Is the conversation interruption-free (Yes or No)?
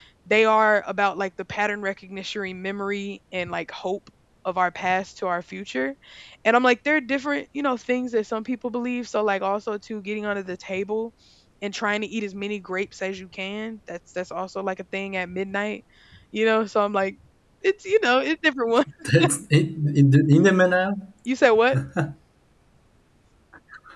Yes